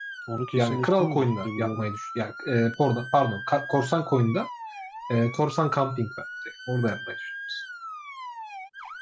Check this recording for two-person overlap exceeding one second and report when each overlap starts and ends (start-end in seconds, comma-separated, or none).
0.6-1.9